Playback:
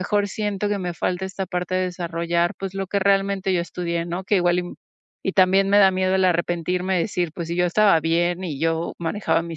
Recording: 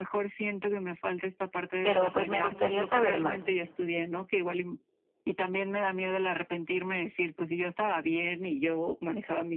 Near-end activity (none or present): present